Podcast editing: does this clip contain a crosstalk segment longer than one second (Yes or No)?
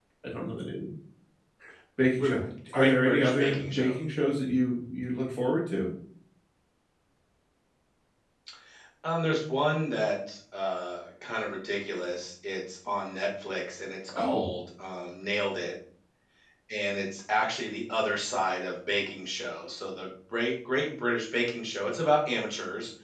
Yes